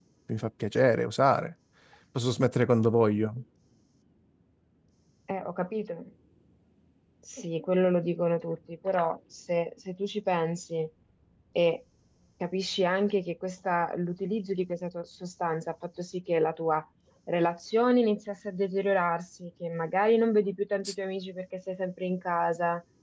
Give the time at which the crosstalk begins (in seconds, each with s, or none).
none